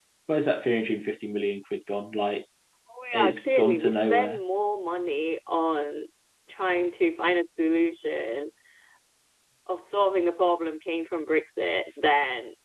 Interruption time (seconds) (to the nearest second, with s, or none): 3 s